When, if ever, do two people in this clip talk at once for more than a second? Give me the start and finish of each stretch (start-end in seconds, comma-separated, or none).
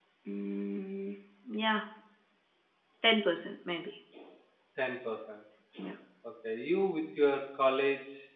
none